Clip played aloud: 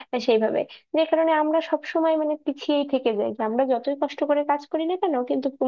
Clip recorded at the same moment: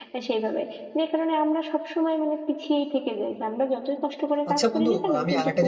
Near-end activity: present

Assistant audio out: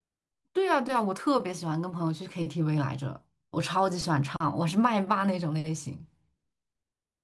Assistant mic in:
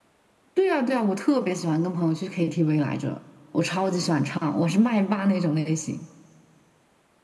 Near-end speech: none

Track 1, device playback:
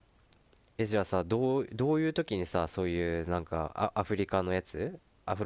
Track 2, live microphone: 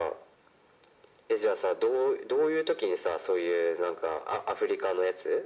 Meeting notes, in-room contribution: none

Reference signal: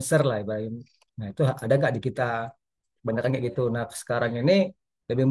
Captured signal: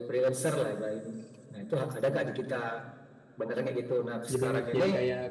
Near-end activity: present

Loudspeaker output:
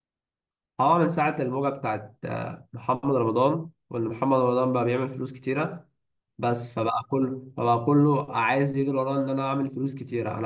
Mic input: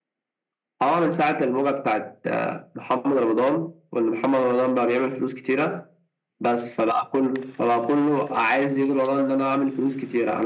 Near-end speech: none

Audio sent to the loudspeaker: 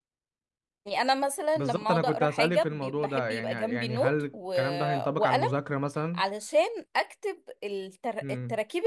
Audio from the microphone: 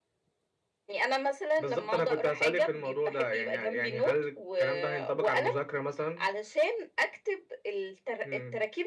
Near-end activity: none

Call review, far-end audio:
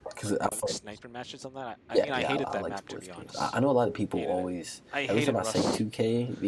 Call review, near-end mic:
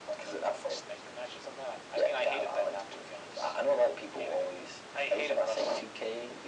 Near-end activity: none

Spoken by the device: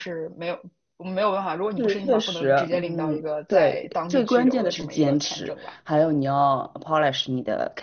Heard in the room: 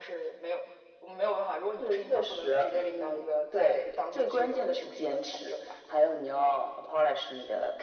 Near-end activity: none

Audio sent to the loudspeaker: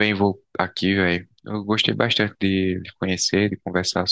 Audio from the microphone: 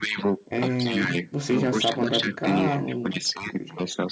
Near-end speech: present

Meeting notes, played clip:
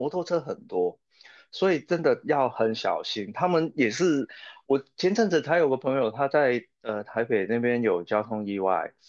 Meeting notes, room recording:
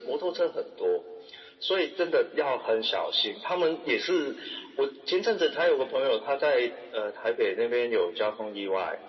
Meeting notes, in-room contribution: none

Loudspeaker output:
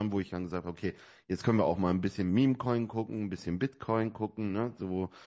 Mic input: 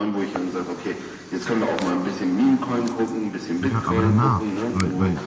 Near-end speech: present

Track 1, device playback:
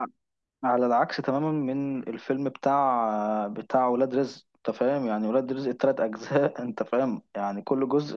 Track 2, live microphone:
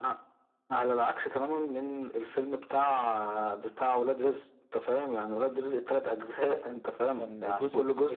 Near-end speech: present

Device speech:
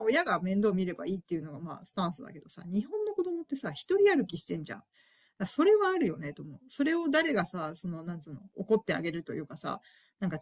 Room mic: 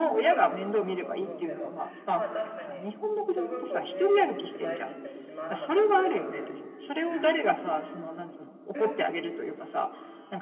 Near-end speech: present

